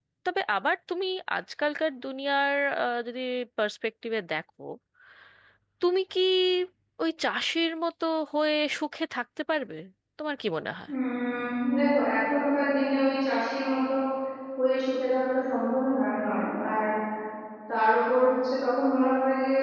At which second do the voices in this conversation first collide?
none

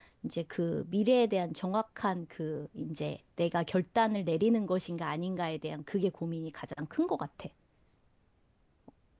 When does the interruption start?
none

